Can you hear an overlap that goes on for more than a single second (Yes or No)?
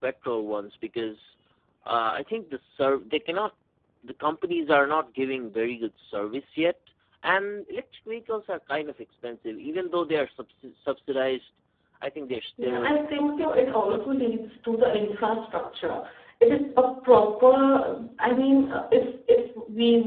Yes